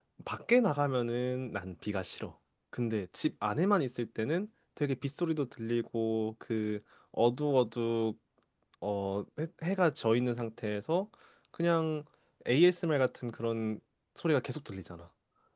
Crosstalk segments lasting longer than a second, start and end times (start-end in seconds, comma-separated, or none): none